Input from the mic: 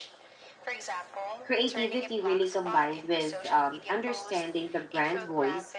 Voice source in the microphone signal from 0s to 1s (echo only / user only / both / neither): echo only